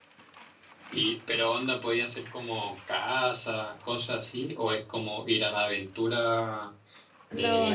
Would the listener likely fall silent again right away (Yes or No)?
No